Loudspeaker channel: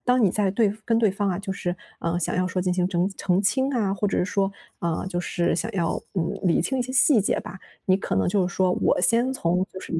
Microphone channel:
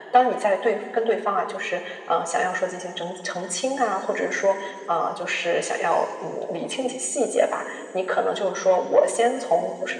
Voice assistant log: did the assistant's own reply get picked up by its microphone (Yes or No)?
Yes